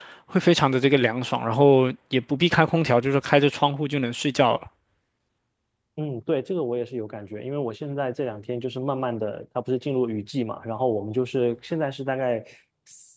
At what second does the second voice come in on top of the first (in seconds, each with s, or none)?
none